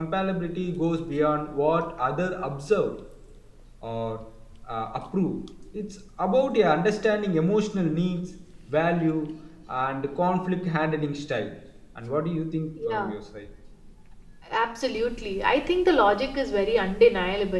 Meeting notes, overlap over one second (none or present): none